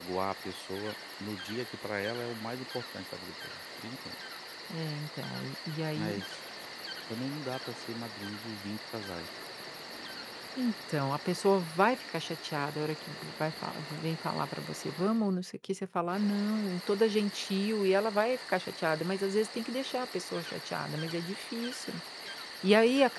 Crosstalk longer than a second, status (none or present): none